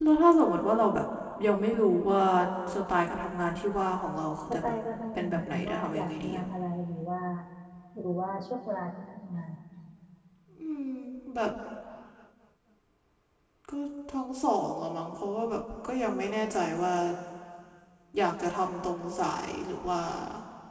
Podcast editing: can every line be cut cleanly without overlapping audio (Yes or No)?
No